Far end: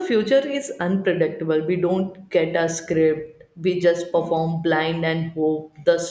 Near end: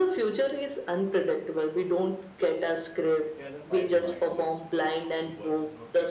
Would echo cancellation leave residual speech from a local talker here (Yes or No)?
Yes